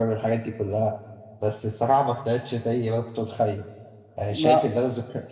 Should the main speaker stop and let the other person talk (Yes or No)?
No